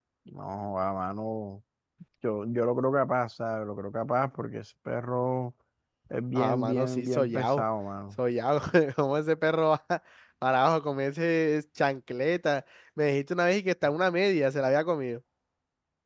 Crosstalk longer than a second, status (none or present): present